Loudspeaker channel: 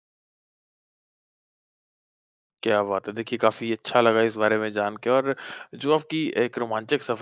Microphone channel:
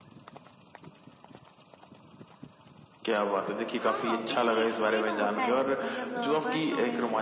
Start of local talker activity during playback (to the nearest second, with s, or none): 4 s